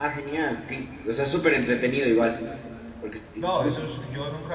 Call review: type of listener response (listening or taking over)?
taking over